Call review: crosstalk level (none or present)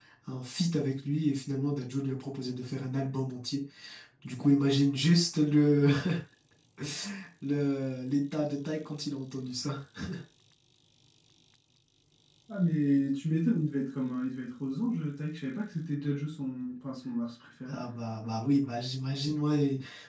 none